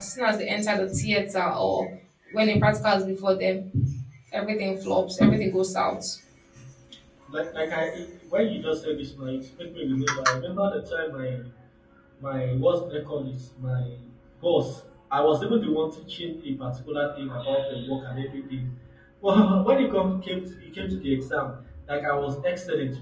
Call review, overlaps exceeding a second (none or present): none